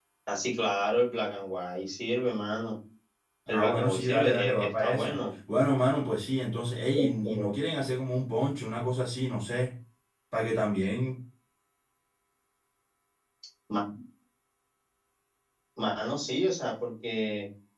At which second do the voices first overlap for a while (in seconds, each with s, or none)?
3.5 s